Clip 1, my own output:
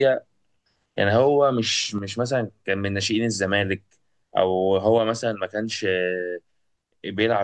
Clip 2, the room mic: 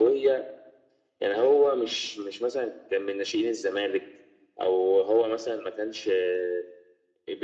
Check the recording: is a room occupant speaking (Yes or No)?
No